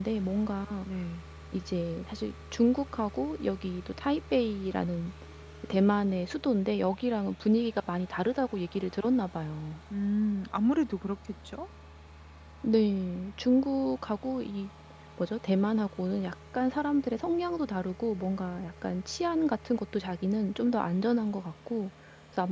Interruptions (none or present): none